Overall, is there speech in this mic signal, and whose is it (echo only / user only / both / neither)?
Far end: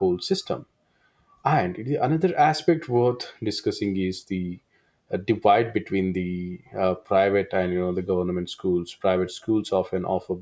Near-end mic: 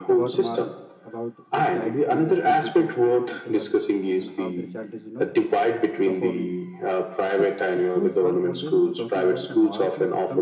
both